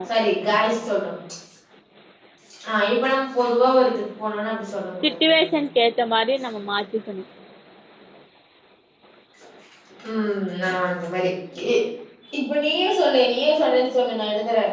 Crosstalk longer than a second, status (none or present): none